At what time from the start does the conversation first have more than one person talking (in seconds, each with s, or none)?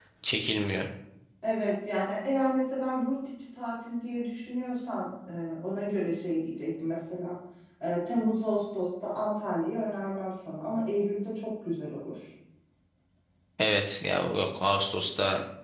none